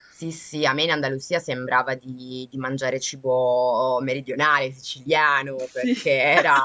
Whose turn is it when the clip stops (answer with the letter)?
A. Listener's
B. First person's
B